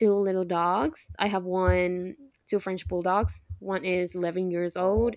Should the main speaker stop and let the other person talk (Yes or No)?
No